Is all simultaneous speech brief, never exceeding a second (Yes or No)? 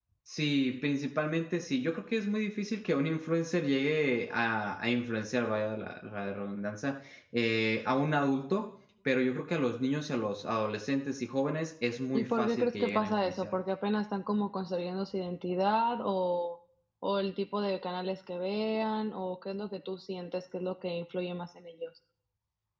No